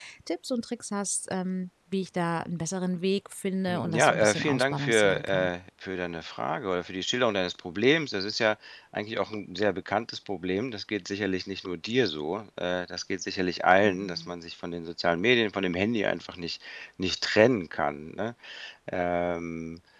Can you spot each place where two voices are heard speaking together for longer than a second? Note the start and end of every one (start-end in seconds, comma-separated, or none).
3.7-5.5